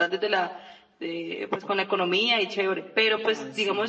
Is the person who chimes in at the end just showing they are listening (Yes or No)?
Yes